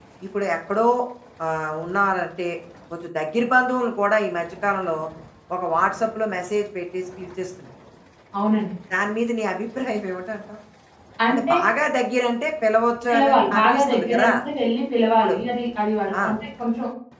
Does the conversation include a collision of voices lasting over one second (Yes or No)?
Yes